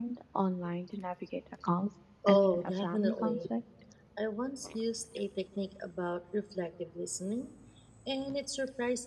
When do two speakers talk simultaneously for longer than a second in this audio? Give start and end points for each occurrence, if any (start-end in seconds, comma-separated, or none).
2.3-3.5